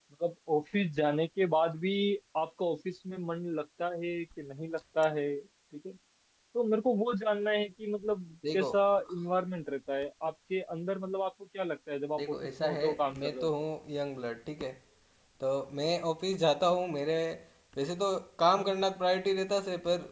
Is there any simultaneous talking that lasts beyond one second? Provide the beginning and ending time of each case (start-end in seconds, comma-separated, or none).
12.2-13.5